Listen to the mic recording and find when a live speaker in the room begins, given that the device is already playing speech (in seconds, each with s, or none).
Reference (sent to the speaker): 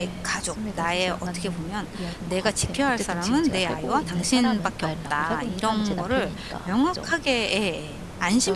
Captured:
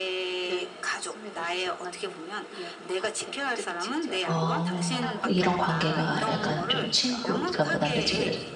4.3 s